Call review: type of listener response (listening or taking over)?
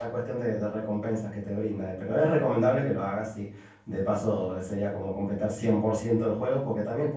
listening